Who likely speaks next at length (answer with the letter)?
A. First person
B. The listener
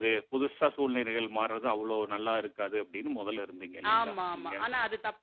B